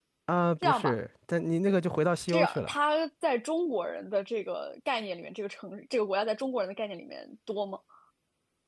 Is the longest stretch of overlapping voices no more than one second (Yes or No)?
Yes